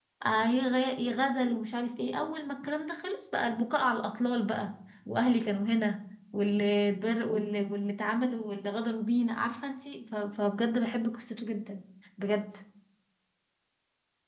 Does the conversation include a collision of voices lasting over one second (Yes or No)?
No